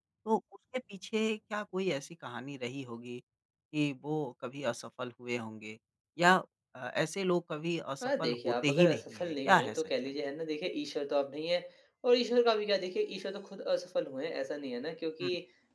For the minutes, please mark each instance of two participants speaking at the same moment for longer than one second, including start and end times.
8.0-9.9

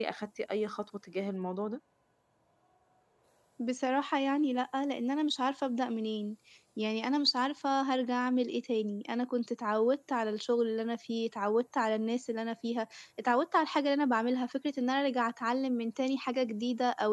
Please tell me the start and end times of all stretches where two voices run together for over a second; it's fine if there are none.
none

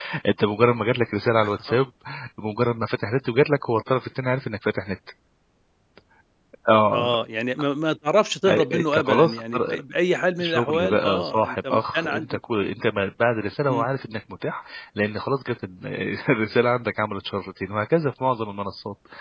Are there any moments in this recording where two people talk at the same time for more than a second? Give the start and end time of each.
8.5-9.8, 10.4-12.4

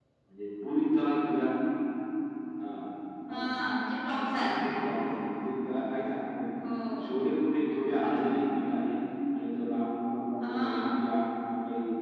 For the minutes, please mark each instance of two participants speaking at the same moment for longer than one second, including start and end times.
none

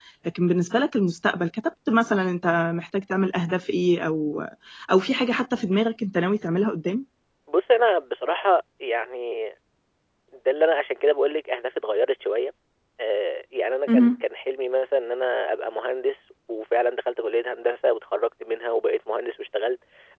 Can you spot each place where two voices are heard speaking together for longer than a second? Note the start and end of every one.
none

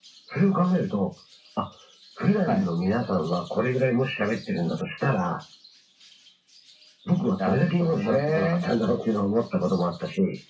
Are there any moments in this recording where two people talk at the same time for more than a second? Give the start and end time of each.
7.4-8.6

